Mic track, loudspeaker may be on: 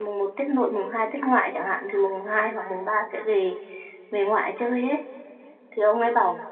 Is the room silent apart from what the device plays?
No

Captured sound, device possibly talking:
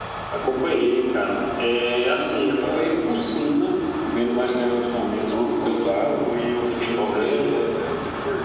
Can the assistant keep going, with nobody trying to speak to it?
Yes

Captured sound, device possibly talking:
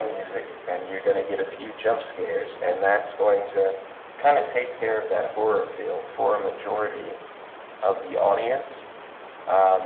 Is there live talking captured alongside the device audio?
No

